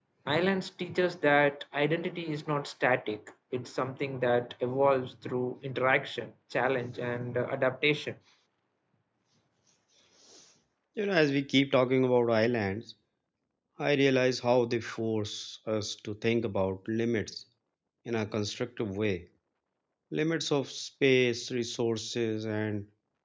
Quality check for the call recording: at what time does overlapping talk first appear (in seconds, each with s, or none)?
none